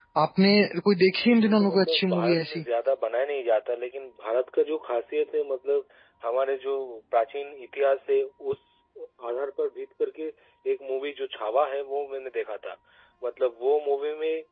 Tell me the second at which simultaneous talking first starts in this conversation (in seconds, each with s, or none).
1.2 s